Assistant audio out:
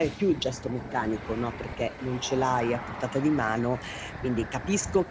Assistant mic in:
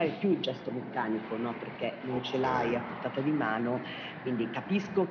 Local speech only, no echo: Okay.

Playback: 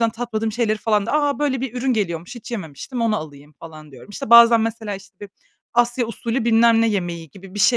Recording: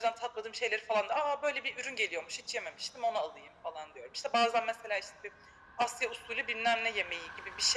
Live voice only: none

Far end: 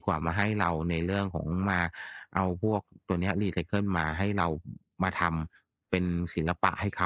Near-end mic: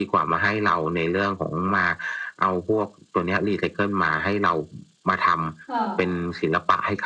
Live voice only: ค่ะ

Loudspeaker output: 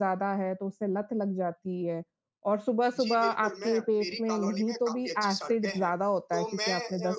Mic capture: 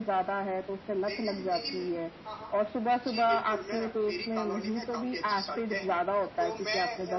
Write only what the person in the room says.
लेकिन दीदी में हाँ, हाँ।

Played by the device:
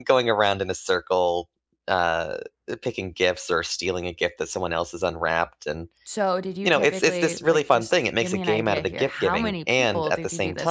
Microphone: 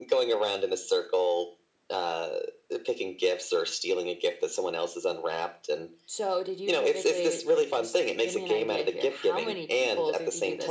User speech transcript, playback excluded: none

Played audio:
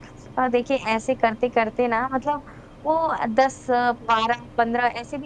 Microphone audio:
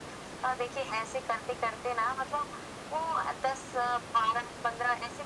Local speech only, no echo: none

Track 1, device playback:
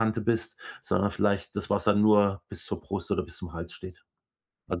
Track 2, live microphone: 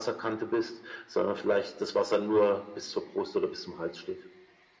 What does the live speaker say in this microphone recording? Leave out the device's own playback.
none

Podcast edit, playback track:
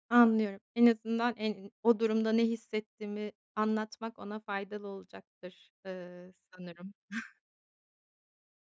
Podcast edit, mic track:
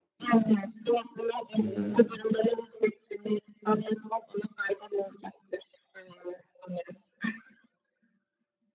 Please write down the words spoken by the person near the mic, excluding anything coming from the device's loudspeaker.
Hı hı.

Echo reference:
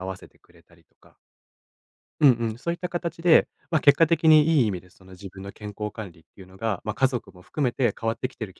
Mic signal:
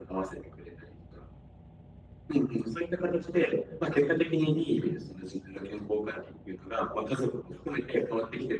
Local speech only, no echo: none

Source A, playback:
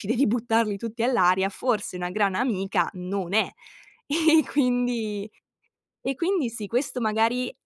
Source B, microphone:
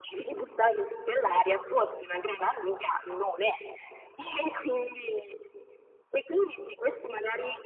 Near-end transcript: none

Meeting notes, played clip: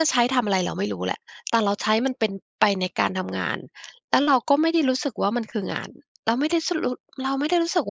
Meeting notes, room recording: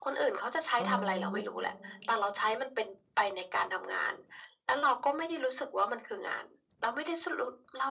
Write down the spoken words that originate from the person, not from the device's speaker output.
อ๋อ

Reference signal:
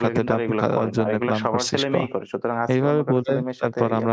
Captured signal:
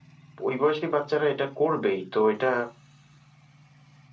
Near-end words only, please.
ওই বয়সেই বাচ্চারা এটা করবেই। তো এটা

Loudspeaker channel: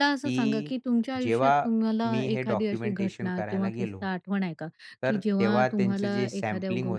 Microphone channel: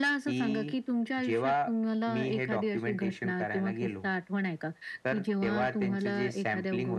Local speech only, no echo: none

